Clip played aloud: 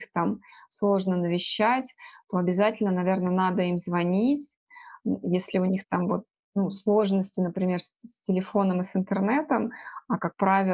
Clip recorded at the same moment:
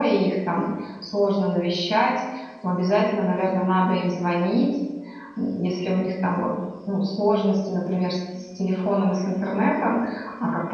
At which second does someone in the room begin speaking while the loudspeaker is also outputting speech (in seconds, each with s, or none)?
none